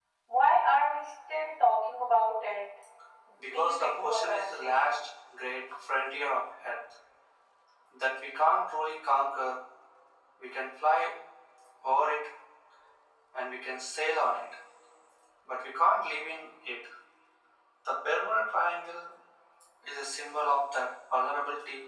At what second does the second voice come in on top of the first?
4 s

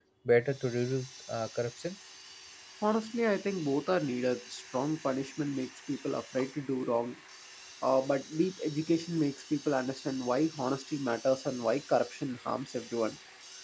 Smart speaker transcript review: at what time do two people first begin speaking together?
none

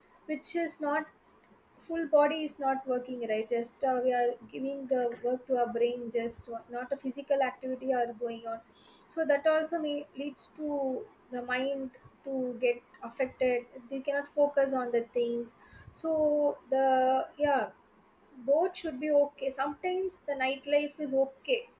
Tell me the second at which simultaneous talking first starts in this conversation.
none

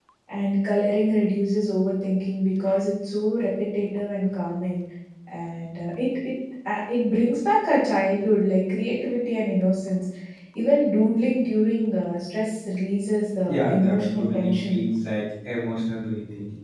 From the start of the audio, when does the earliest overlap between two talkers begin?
13 s

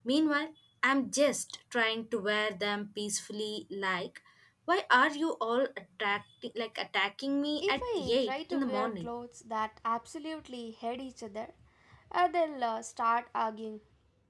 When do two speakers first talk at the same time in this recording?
8 s

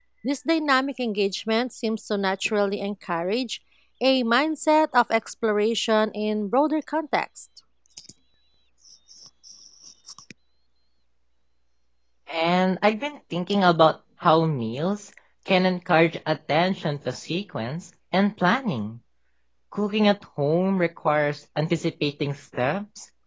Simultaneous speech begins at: none

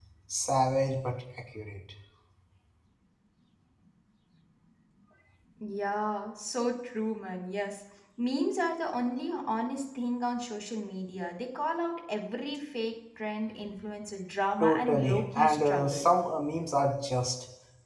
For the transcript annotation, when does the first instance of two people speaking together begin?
15 s

